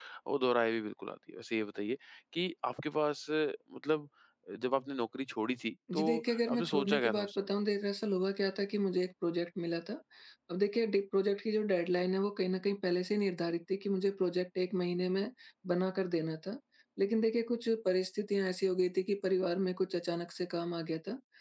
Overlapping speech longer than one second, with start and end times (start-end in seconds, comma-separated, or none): 5.9-7.4